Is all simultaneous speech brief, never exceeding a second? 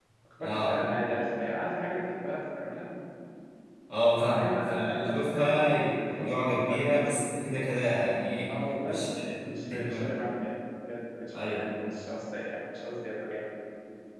No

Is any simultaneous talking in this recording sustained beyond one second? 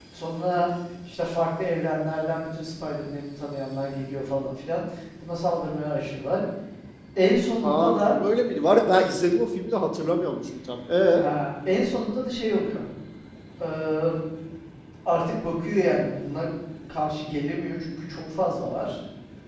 No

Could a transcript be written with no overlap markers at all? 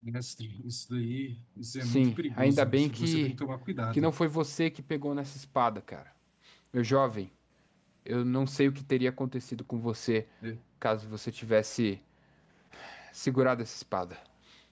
No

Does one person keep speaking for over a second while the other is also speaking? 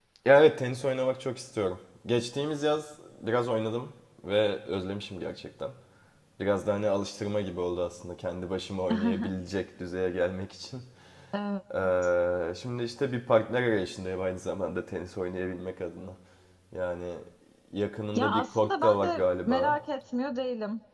Yes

